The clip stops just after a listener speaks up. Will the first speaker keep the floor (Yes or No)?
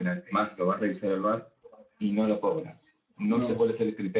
Yes